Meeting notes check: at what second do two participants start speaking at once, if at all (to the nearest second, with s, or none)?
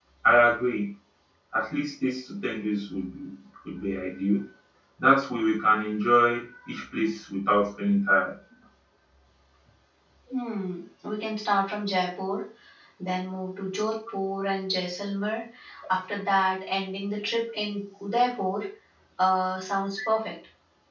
none